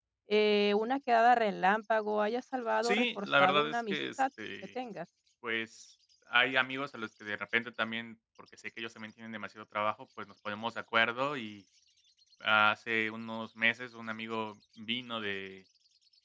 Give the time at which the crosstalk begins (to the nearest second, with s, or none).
3 s